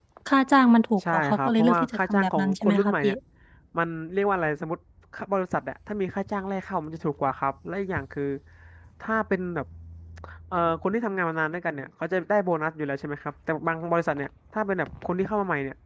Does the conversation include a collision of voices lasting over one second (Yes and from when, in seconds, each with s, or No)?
Yes, from 1.1 s